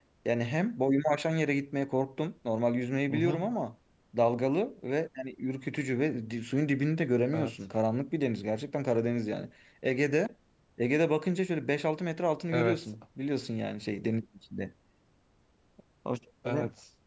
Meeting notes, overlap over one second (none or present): none